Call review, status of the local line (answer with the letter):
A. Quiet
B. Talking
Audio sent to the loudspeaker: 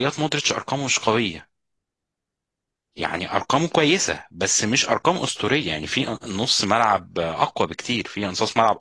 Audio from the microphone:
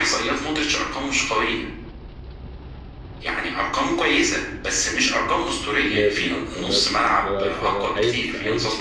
B